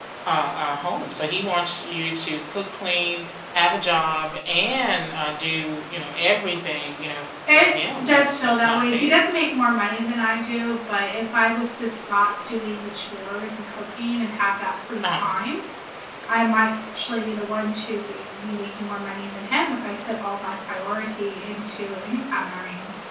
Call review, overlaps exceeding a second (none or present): present